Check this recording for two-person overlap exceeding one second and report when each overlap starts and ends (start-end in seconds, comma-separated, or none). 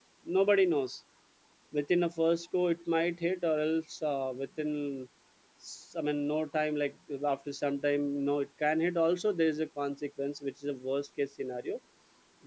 none